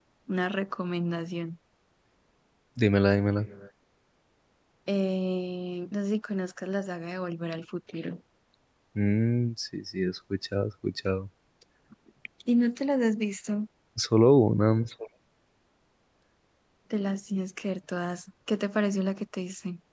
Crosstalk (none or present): none